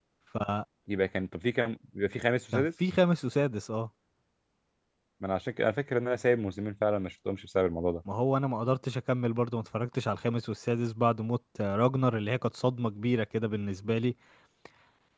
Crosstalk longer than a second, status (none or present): none